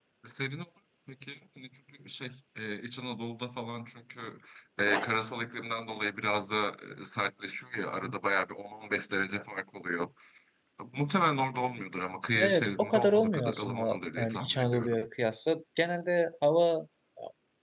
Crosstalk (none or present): present